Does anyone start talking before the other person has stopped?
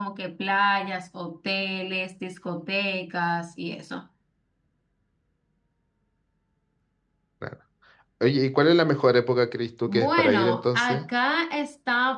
Yes, from 9.9 s

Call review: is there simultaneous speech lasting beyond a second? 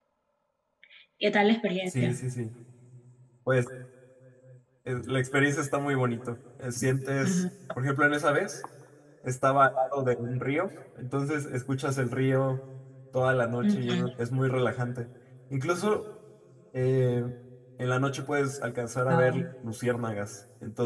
No

